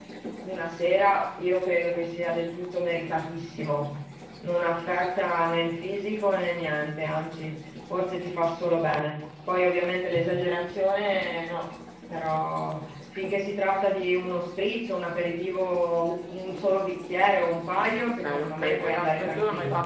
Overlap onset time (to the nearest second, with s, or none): 18 s